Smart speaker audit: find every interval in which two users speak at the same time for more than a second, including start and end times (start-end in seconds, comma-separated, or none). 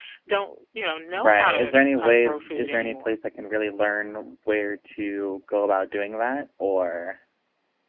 1.1-3.1